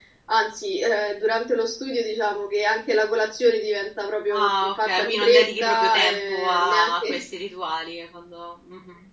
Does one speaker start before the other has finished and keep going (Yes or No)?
Yes